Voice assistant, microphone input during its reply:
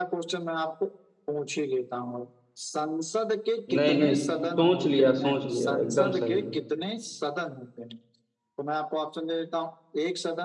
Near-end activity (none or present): present